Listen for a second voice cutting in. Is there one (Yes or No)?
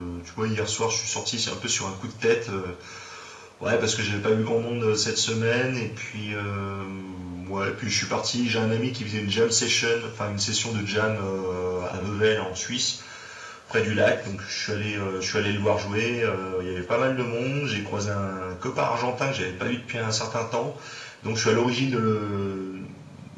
No